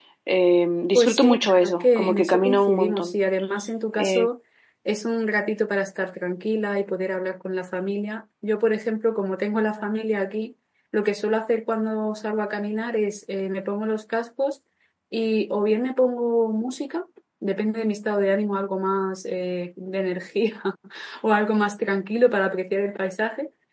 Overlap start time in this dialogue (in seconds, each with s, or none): 0.9 s